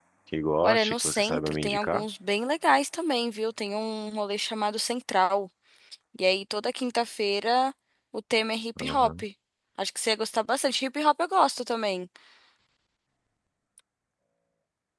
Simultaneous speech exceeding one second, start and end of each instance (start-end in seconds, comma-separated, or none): 0.6-2.0